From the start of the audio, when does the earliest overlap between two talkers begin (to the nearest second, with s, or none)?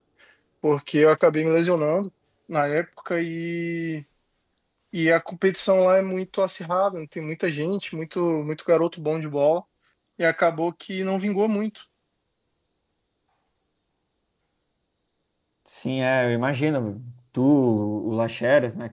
none